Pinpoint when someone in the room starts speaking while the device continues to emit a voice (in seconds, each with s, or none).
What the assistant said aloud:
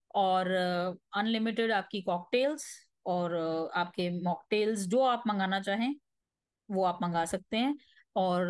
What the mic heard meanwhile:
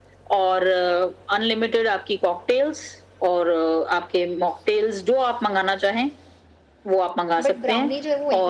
7.4 s